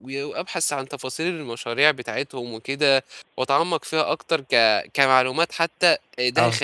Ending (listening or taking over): listening